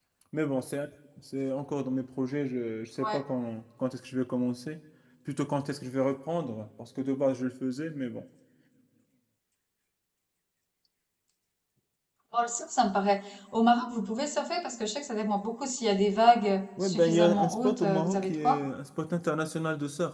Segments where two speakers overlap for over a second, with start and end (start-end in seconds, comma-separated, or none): 16.8-18.6